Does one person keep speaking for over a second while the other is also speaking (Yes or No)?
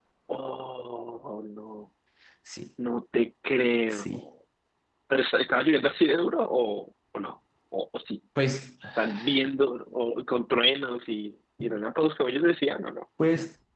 No